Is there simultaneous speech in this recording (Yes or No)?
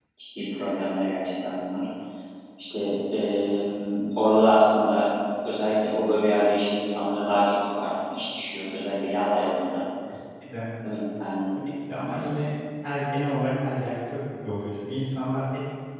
No